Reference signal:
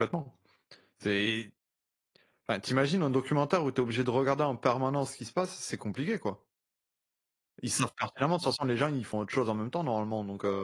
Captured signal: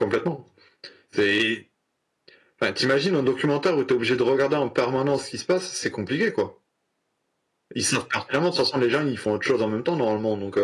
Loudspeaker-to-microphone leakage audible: Yes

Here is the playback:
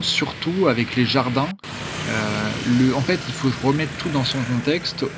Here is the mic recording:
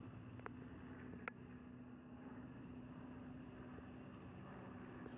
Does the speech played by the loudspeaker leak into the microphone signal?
No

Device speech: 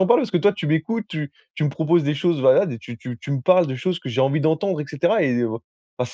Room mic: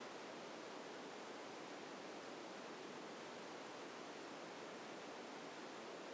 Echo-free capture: Yes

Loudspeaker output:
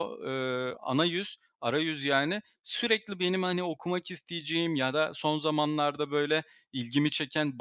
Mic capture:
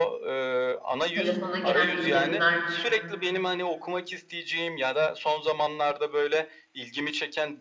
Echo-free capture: No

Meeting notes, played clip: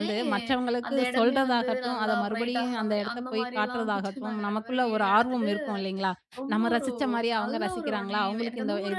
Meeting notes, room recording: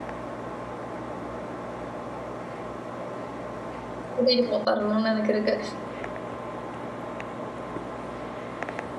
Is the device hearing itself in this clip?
No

